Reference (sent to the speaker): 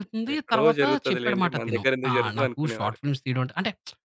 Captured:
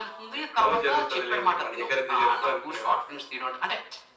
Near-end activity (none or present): none